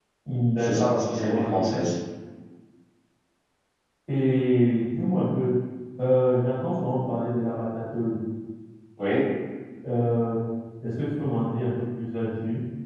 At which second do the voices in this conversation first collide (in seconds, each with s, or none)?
0.6 s